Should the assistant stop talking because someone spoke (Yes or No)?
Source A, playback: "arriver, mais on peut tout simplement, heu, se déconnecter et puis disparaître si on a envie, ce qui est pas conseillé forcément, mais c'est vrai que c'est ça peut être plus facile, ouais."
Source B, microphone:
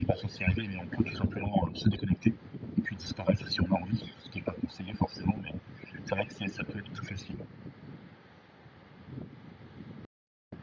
No